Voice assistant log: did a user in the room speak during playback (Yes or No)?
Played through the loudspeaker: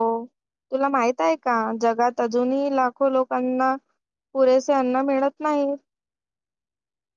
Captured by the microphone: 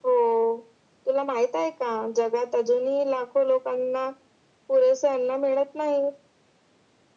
No